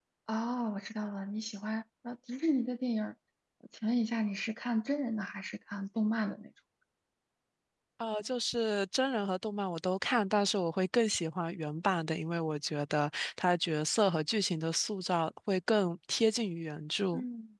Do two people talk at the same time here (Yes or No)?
No